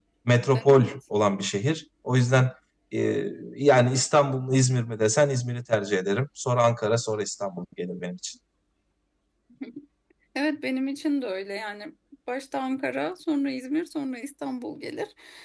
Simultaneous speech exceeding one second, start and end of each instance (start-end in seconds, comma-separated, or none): none